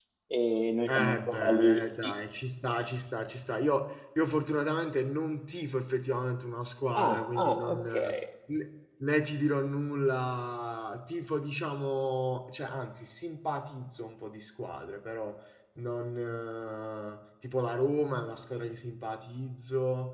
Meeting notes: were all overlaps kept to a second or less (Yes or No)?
No